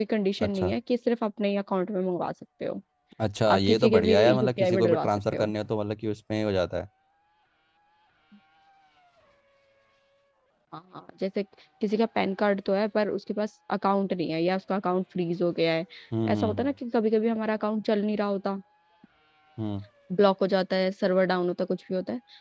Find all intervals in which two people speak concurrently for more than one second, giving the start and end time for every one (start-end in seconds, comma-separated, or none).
3.5-5.5